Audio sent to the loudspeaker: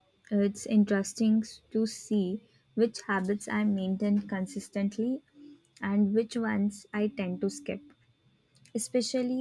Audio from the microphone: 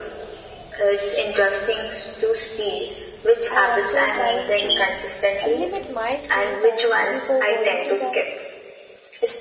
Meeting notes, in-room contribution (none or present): present